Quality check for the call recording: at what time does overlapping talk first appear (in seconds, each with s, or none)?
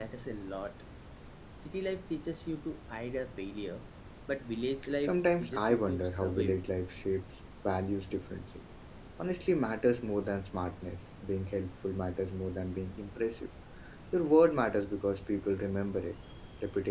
5.0 s